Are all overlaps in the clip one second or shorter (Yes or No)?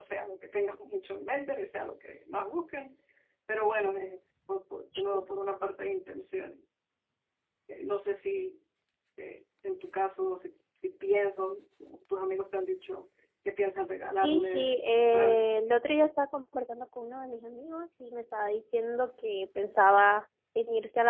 No